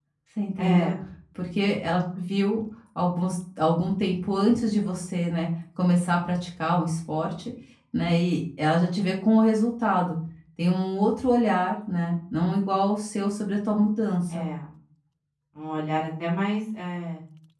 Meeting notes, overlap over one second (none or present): none